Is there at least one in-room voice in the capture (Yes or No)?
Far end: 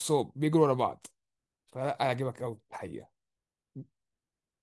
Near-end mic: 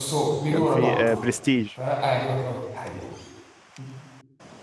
Yes